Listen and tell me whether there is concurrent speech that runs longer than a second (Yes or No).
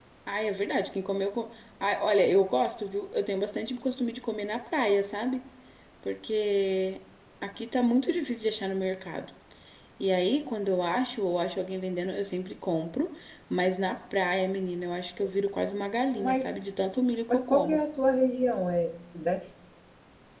No